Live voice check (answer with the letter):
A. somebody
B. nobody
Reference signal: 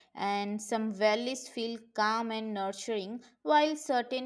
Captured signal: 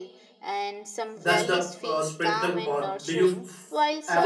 A